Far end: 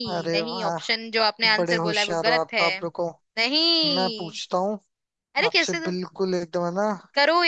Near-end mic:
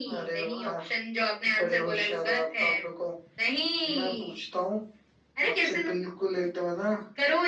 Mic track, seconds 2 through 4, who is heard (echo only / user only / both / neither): echo only